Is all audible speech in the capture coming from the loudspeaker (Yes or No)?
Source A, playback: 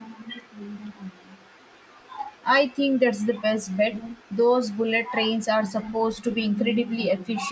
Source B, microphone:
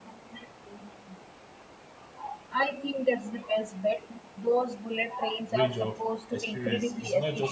No